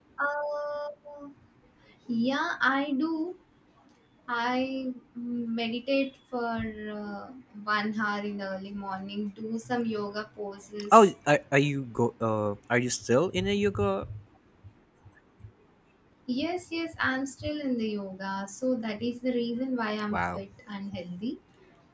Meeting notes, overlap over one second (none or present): none